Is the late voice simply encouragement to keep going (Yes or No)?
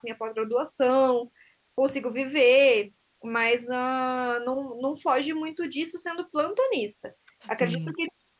Yes